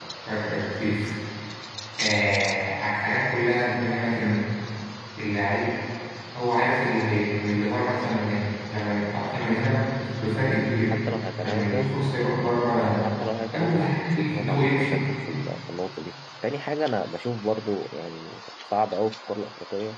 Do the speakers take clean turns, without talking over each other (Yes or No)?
No